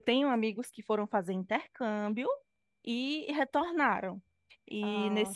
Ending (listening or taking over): listening